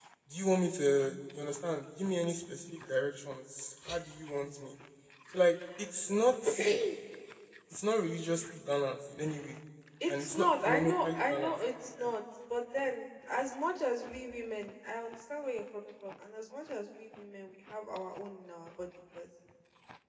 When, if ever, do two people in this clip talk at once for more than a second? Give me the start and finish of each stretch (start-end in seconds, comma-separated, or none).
10.1-11.6